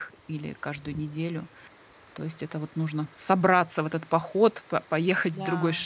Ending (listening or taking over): listening